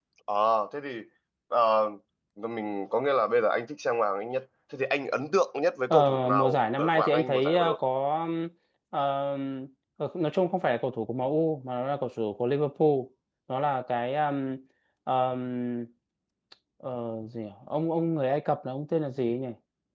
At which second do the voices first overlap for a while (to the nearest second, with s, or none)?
6 s